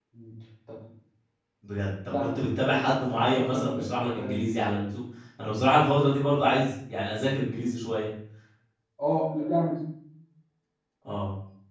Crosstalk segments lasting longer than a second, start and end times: 2.2-4.6

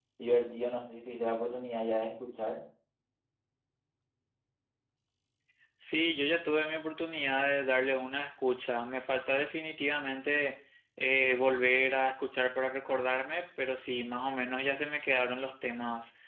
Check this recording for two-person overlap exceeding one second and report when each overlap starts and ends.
none

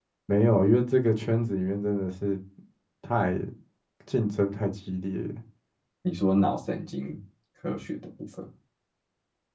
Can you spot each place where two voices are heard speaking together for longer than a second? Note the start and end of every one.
none

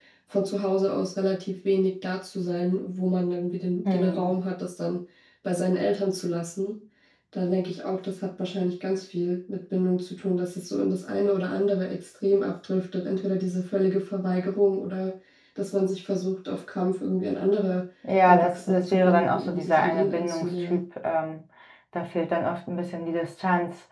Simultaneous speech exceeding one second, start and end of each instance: 18.2-20.8

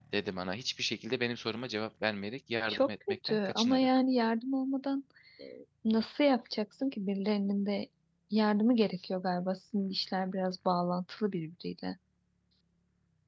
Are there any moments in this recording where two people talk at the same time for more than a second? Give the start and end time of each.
2.7-3.9

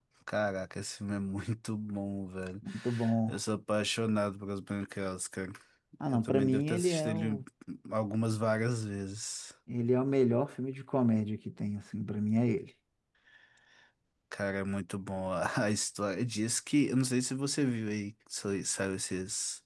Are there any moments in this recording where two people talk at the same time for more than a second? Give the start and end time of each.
6.1-7.4

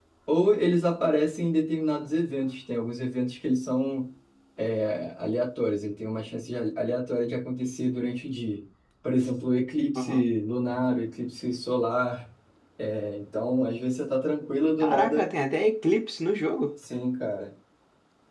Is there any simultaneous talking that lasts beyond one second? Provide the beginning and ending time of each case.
none

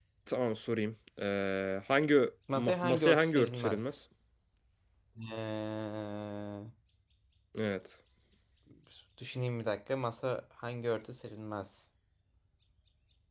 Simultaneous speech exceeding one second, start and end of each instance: 2.5-3.9

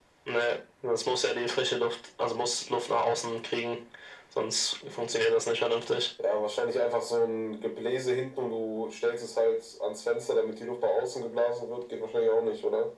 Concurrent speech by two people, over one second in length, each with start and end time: none

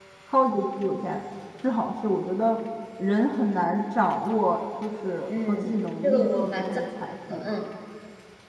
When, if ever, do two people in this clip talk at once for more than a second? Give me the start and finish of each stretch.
5.3-6.8

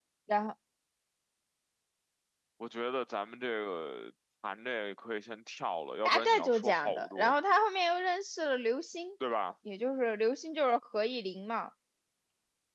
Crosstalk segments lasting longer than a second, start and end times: 6.0-7.3

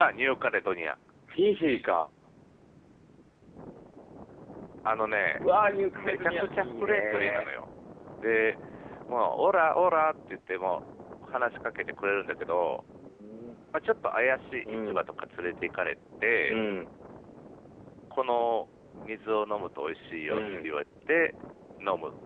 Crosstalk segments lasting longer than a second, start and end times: 5.9-7.5

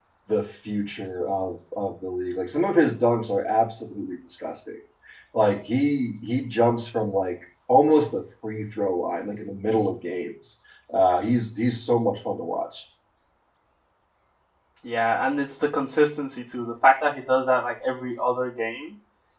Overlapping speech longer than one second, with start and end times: none

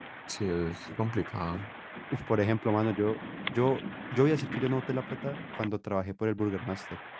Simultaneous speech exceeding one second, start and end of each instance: none

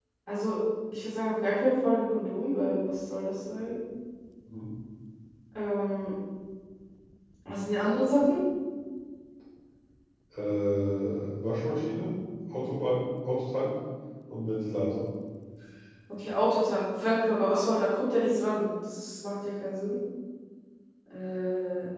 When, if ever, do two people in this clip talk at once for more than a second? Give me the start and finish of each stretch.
none

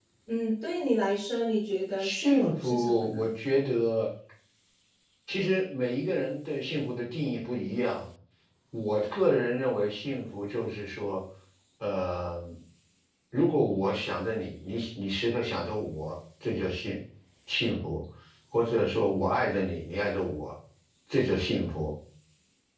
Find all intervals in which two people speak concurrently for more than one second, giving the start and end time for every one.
2.0-3.3

